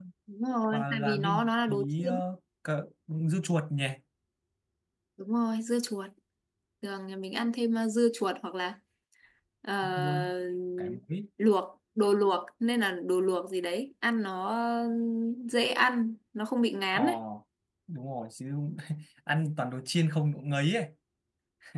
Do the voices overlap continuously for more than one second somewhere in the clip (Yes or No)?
Yes